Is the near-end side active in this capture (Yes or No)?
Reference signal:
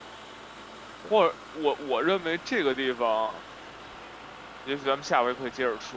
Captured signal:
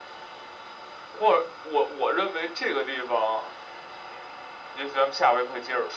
No